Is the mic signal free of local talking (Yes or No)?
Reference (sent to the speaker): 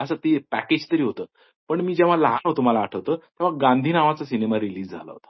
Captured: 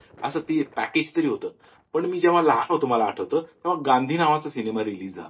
Yes